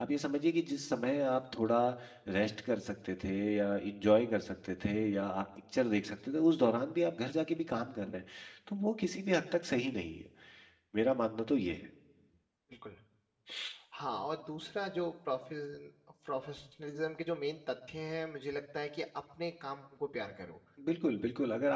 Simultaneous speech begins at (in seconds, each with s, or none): none